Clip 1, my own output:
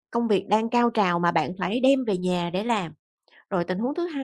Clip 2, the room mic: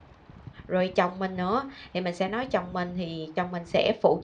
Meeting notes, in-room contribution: present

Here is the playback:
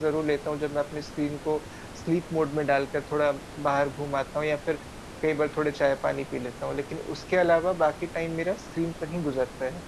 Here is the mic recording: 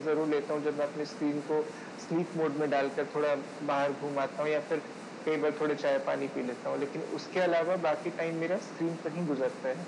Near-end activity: none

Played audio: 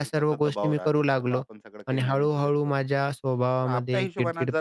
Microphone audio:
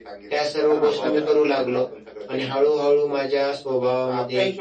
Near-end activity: present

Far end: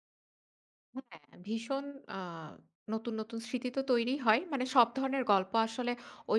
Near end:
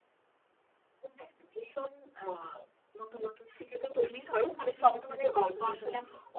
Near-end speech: present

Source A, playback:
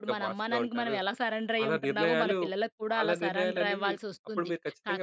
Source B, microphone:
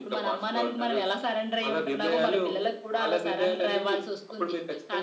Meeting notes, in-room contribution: none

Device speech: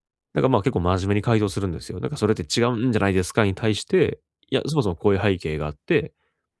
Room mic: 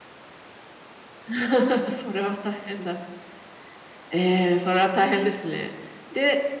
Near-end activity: present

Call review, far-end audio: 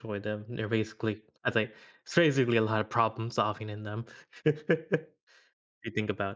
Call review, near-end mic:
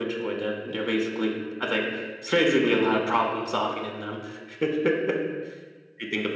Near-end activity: none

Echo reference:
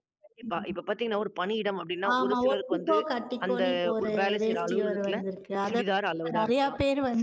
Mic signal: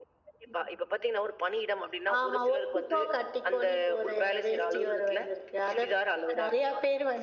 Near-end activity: none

